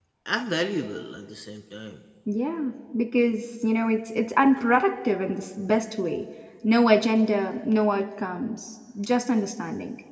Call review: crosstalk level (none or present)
none